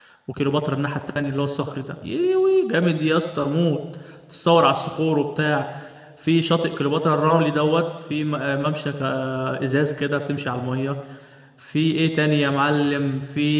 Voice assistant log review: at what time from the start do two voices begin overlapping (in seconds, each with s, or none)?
none